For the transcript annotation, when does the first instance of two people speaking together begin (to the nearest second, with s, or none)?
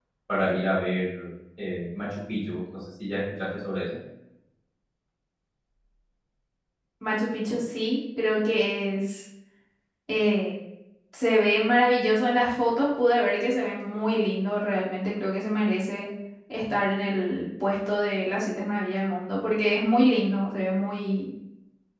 none